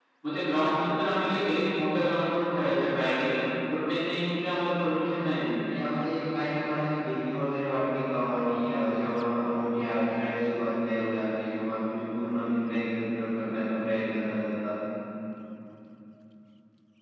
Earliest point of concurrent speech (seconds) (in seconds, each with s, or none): none